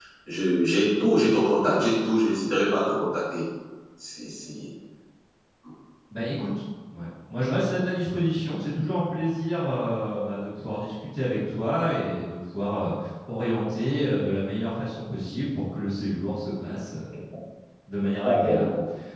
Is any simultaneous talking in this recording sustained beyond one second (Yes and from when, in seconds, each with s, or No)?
No